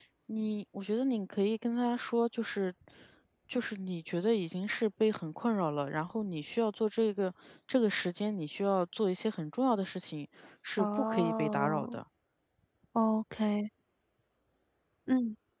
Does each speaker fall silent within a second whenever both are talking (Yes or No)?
No